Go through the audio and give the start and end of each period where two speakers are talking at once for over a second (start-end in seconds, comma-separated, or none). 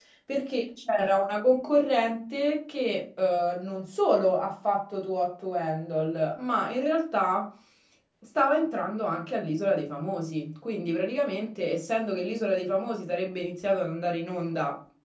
none